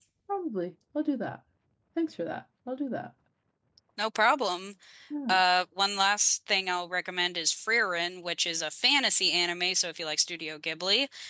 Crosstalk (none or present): none